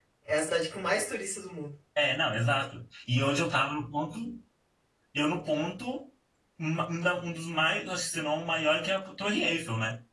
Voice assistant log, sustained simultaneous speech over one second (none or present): none